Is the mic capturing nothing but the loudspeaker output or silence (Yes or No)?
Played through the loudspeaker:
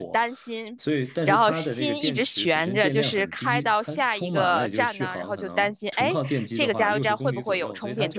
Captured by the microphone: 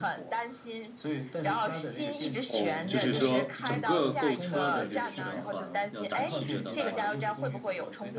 No